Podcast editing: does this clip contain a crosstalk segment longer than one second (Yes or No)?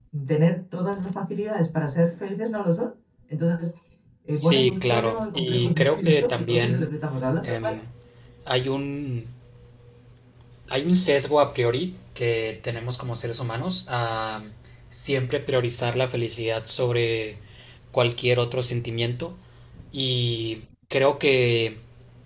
Yes